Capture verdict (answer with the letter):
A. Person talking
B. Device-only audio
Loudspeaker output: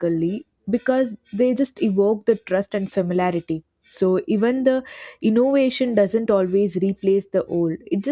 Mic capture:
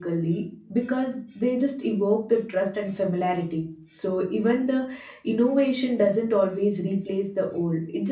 B